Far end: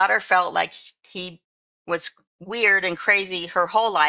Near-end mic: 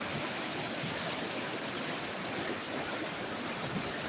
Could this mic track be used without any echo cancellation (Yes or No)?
Yes